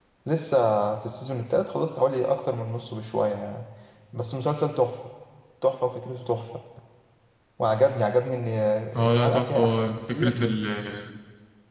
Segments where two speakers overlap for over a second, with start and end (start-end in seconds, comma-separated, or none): 9.1-10.4